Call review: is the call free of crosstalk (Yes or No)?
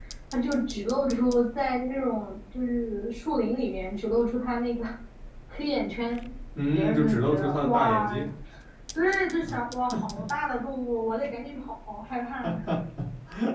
No